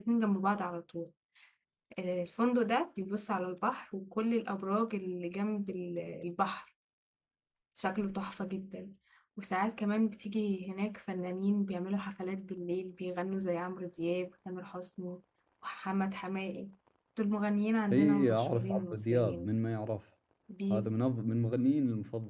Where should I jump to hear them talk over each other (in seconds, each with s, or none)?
17.9 s